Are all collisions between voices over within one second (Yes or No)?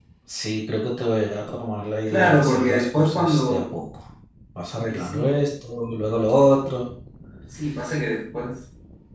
No